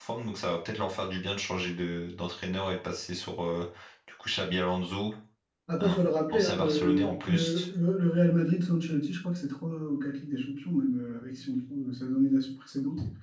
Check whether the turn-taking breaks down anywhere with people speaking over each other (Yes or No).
Yes